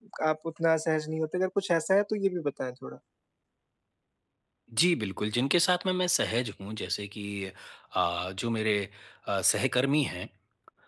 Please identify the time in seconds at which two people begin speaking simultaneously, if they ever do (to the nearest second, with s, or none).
none